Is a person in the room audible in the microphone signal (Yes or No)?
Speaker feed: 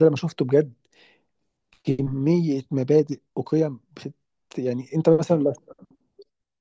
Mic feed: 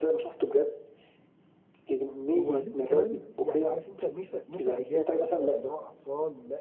Yes